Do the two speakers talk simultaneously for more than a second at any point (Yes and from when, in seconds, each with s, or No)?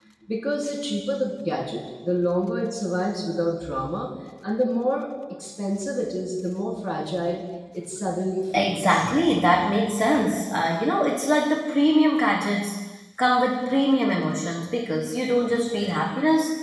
No